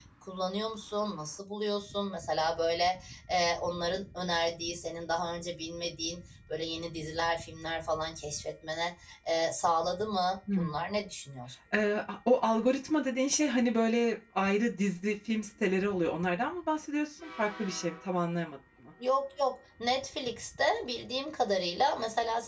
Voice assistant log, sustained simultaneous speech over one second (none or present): none